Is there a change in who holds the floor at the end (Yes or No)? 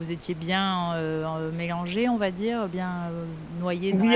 Yes